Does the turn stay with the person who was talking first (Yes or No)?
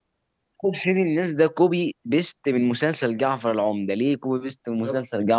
No